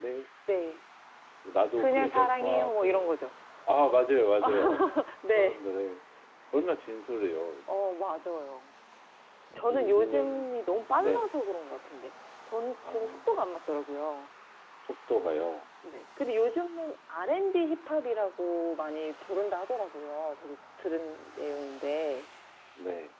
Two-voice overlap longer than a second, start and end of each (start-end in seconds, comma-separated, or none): 1.8-3.1, 9.7-11.3